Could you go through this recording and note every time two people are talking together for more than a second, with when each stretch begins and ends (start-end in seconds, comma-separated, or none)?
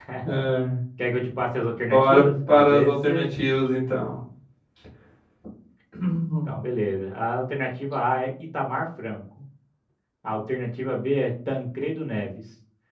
1.9-3.2